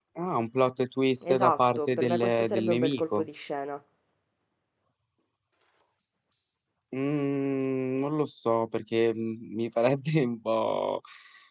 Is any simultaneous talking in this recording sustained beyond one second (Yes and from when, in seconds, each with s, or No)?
Yes, from 1.2 s